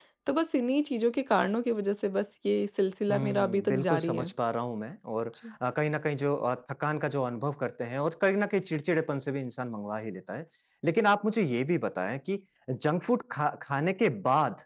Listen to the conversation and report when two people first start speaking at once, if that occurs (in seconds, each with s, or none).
3.1 s